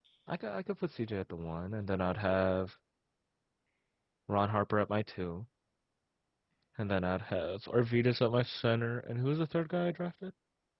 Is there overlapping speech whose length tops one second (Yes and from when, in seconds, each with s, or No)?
No